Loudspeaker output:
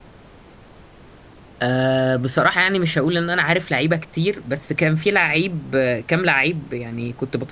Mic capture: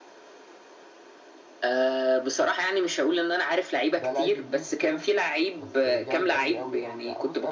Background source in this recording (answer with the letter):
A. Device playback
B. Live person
B